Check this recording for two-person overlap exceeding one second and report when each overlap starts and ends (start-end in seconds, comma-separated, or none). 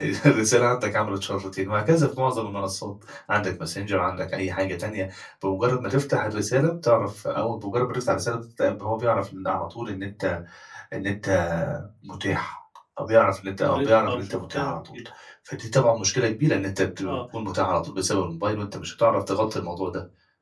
13.7-15.0